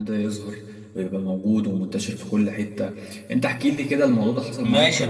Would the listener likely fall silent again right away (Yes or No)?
No